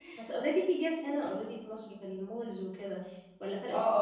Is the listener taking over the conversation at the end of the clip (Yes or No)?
Yes